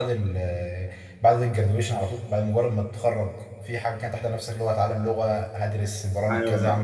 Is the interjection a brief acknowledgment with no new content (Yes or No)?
No